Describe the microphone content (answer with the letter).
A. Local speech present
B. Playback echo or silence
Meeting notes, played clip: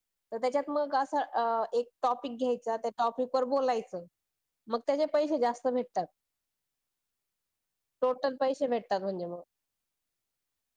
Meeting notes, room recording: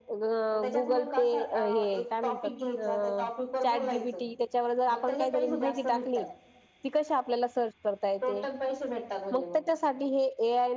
A